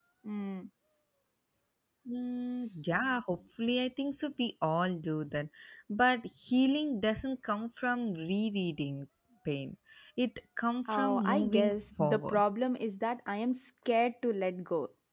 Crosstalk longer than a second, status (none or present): present